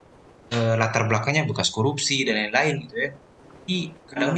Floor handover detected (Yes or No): No